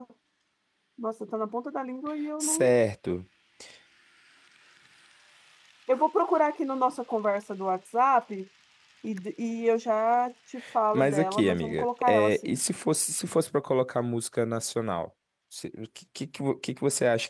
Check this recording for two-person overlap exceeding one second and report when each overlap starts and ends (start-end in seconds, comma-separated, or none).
10.9-12.6